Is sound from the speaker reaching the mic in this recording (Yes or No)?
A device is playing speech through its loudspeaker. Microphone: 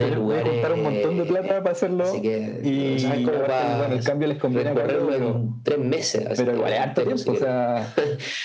Yes